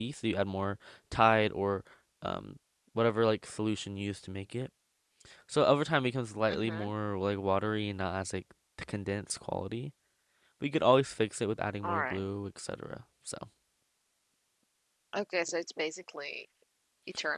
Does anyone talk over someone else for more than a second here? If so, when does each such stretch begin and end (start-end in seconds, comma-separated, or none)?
none